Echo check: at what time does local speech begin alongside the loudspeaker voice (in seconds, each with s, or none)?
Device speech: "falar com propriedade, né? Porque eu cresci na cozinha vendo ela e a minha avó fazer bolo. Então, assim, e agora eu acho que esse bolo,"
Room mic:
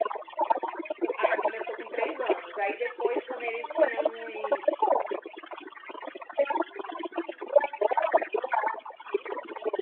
1.0 s